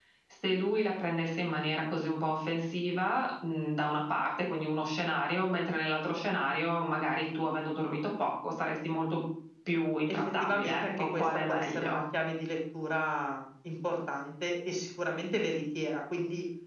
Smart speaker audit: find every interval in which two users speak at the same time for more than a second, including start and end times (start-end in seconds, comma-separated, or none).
10.1-12.0